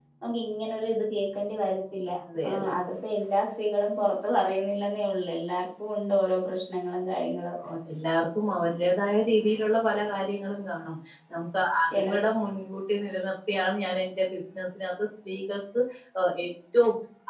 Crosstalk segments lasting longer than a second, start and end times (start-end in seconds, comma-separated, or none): none